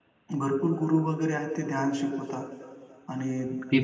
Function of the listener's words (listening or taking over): listening